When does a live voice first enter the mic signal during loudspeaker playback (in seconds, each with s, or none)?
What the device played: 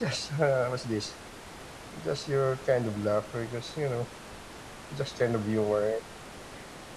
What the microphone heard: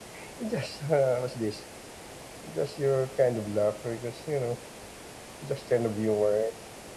none